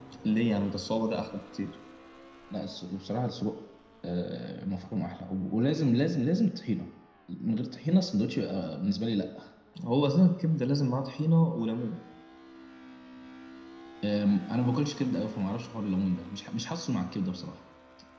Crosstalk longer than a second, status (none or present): none